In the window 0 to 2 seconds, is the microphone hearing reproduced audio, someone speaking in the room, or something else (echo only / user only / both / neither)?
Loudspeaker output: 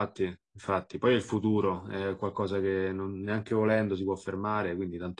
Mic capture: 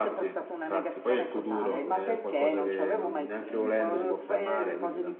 both